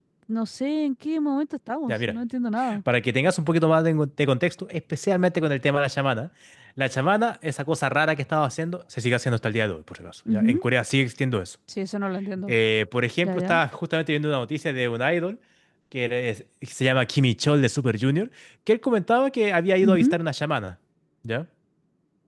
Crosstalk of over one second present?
No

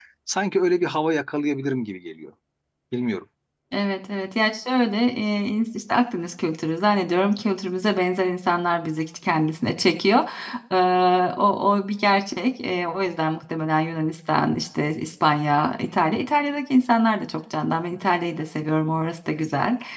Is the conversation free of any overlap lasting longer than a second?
Yes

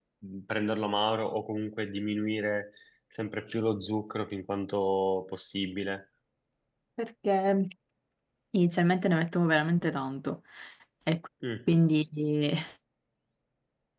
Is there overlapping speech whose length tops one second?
No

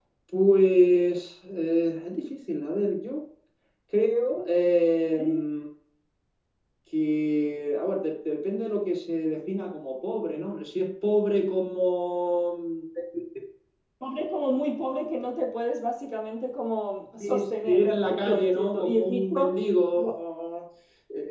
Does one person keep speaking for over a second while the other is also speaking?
Yes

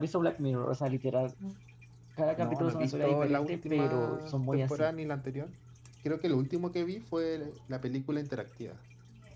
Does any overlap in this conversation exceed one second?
Yes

